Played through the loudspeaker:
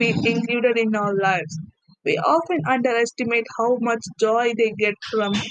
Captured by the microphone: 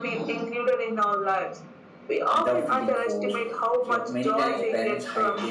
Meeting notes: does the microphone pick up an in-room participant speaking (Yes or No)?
Yes